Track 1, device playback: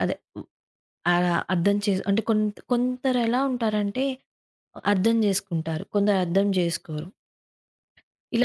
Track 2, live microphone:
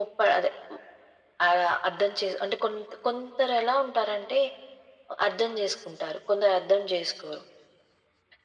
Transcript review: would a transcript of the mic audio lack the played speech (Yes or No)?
No